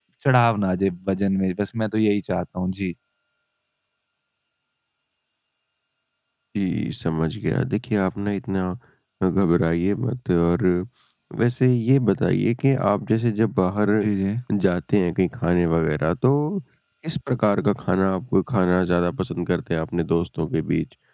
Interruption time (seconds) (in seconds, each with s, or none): none